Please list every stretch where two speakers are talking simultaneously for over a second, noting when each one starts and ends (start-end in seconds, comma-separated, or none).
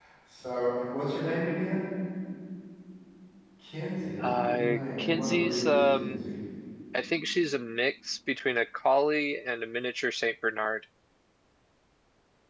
4.2-6.2